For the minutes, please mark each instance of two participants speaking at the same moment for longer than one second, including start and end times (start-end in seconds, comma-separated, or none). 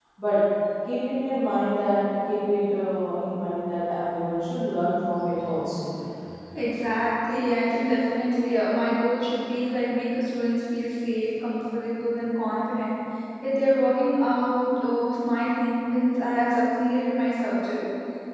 none